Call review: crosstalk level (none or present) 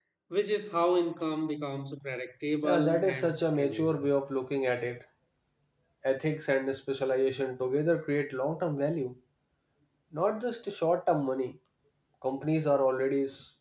present